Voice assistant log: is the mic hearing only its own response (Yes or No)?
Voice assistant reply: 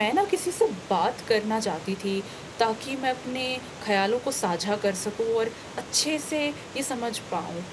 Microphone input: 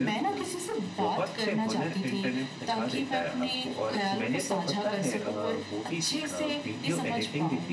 No